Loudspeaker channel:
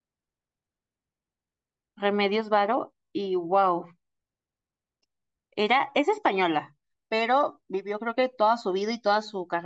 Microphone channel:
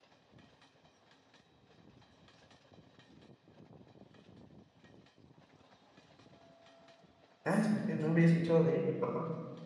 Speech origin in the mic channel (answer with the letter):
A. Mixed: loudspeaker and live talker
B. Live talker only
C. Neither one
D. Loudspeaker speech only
B